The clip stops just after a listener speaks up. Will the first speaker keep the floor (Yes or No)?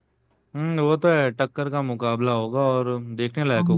No